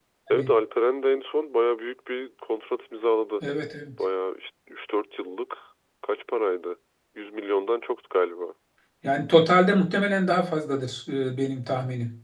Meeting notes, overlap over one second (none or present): none